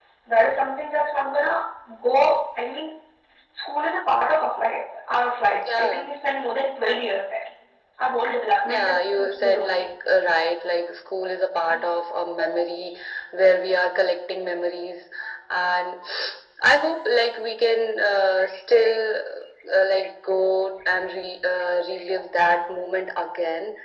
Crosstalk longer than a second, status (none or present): present